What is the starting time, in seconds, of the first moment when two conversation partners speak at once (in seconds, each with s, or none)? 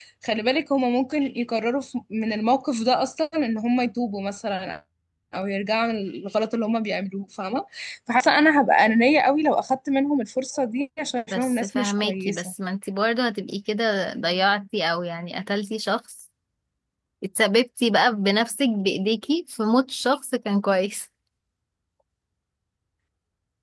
11.3 s